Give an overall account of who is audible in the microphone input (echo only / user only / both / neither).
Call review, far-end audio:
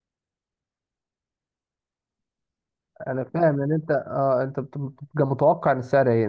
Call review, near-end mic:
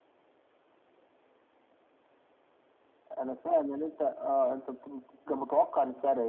echo only